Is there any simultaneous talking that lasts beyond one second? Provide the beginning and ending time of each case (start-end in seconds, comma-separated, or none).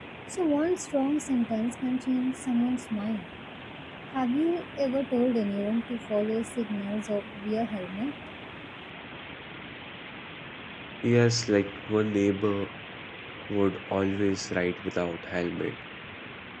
none